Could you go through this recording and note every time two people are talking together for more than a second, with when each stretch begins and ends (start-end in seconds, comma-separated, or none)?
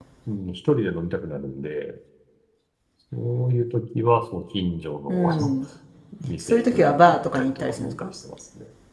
6.4-8.1